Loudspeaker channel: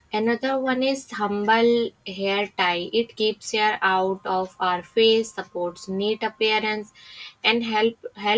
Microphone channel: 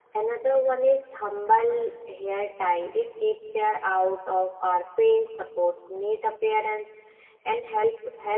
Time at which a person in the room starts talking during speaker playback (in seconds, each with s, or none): none